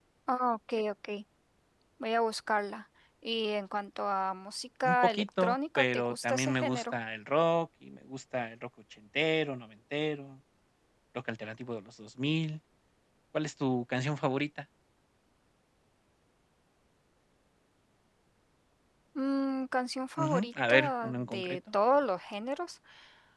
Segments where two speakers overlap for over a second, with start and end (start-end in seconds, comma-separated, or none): 4.8-6.9, 20.2-21.6